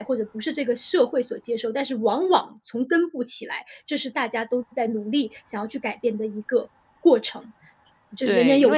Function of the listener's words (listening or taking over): taking over